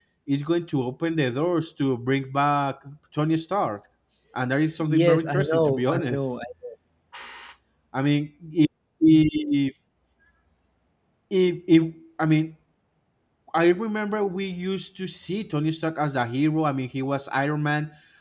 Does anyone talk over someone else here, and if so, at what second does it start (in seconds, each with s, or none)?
4.8 s